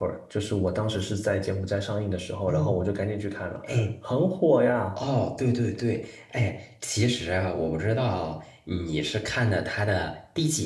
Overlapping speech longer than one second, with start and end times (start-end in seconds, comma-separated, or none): none